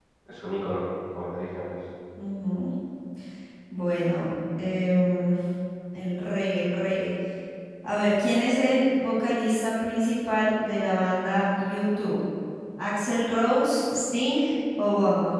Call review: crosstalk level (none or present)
none